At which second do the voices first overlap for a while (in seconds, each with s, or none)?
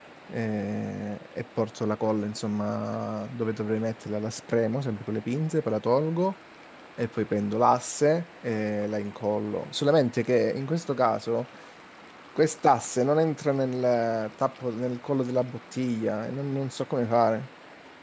none